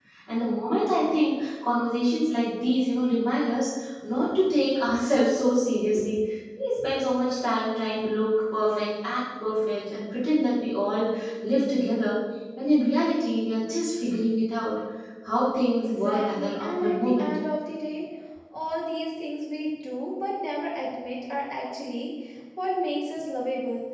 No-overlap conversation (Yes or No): No